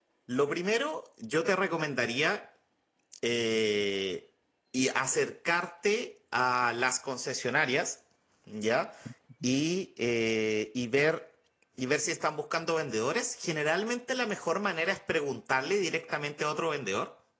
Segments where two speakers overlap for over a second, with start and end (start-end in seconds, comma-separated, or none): none